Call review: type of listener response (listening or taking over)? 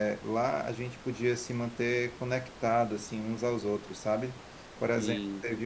listening